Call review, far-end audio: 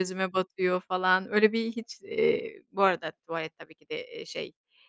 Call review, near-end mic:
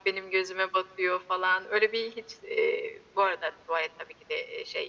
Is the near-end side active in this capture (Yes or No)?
No